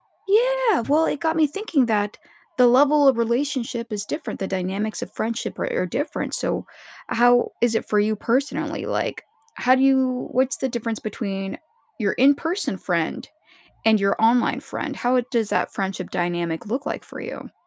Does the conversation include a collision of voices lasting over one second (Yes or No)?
No